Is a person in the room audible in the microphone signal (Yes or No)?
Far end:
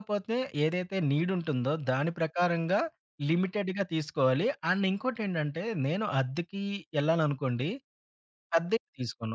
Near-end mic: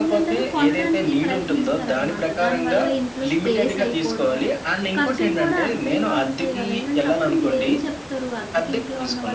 Yes